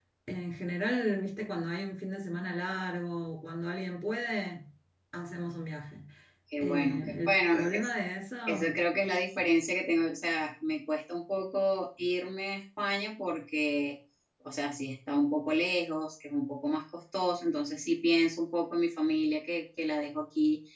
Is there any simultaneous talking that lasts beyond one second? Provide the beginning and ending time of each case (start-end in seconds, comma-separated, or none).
6.6-7.9